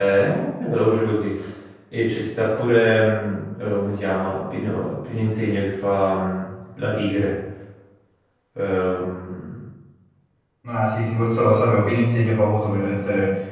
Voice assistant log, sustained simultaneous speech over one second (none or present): none